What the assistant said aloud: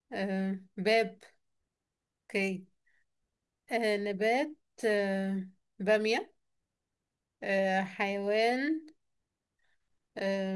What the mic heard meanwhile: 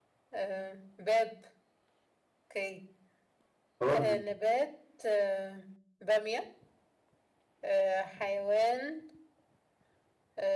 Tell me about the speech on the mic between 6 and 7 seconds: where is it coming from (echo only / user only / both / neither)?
echo only